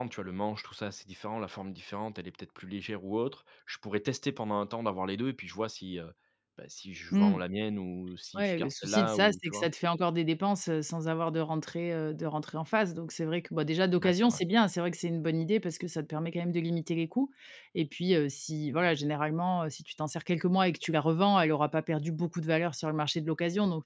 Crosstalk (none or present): present